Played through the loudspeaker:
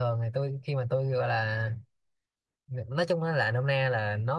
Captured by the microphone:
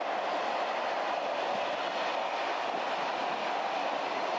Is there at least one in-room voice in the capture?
No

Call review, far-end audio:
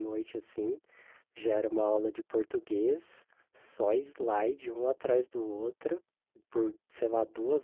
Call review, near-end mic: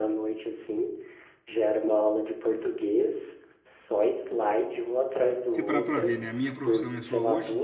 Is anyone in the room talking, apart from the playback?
Yes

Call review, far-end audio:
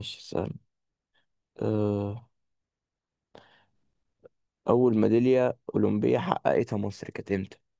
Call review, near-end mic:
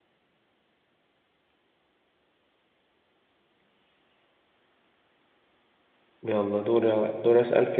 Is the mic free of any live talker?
No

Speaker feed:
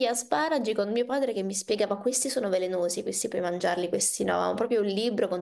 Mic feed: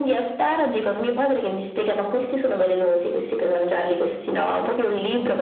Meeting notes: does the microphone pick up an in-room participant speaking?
No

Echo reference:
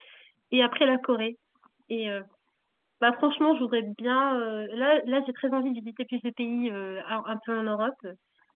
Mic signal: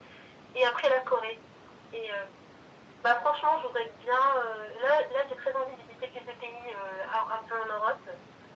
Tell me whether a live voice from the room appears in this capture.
No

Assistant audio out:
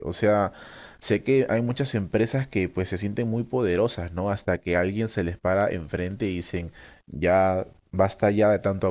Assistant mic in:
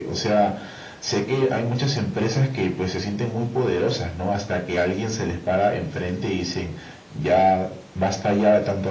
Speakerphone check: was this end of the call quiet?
Yes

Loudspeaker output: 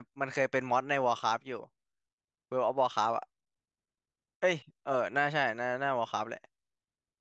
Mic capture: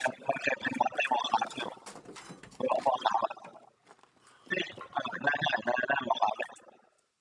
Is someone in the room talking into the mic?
No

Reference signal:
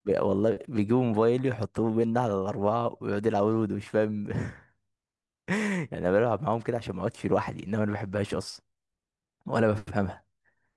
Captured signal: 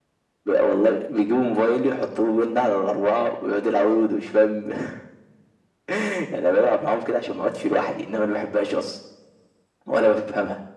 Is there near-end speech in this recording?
No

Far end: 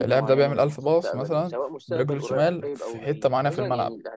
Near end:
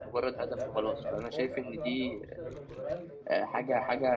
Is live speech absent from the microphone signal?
No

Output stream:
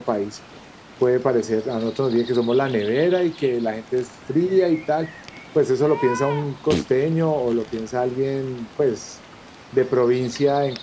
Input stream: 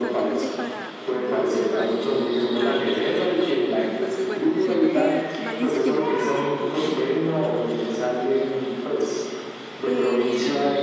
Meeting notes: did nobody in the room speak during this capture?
No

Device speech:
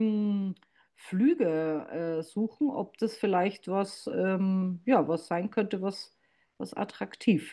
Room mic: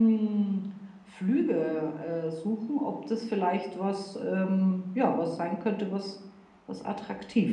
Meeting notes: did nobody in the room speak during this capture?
Yes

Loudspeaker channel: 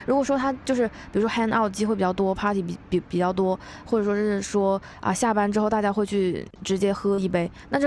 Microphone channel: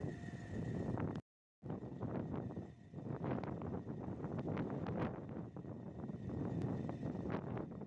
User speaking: No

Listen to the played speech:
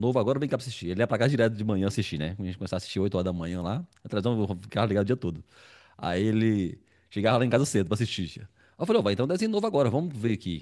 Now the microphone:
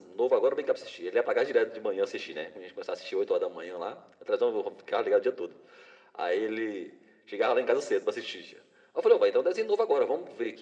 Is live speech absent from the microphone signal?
Yes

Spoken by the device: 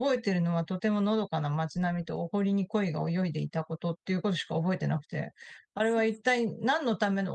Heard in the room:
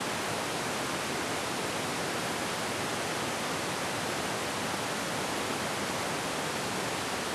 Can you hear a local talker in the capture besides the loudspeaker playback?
No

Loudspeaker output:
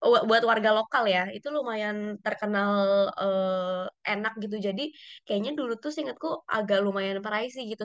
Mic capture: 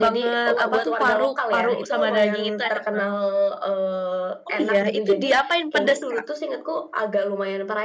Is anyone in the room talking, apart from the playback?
Yes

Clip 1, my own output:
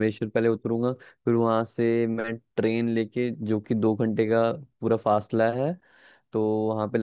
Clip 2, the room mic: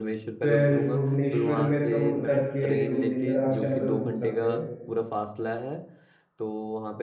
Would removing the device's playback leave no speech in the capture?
No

